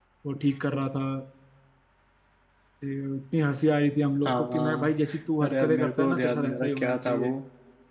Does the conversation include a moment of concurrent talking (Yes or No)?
Yes